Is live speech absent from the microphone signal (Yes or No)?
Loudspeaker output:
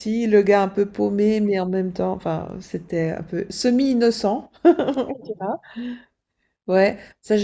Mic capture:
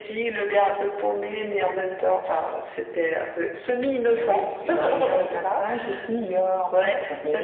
No